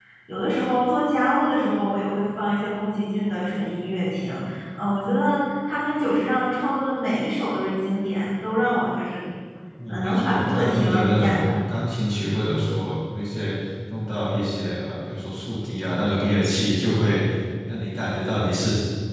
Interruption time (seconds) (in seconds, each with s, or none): 9.9 s